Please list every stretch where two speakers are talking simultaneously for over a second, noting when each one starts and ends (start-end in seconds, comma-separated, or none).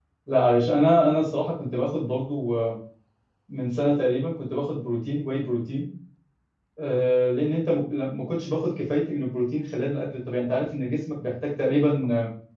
none